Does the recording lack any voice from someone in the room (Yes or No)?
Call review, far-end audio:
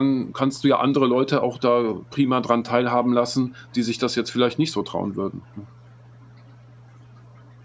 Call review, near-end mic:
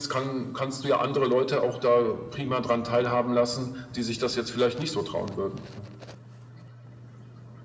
Yes